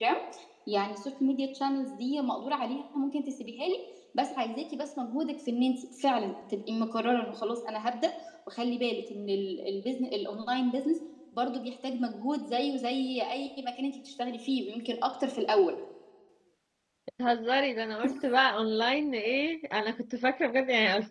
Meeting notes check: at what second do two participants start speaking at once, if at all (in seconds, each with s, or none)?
none